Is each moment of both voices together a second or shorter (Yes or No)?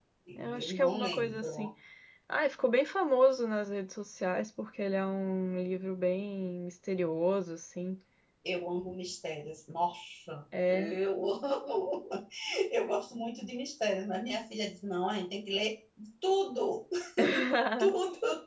No